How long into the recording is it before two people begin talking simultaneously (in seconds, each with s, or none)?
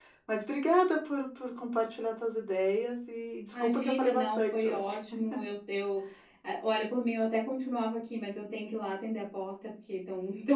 3.5 s